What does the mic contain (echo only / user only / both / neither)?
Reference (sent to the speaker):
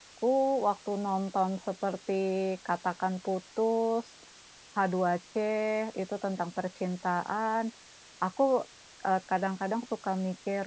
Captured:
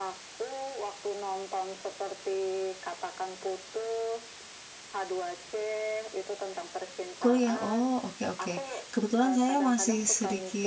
both